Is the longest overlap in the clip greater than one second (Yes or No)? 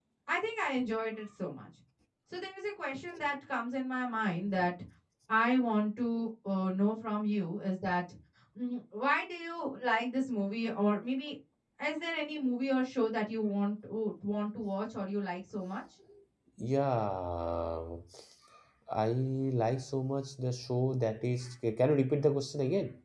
No